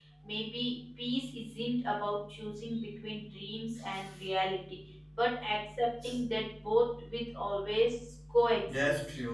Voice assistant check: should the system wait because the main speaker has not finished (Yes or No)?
No